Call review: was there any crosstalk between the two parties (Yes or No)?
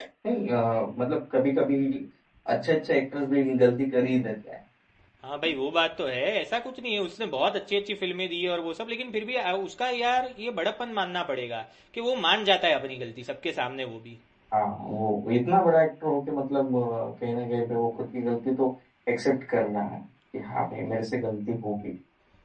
No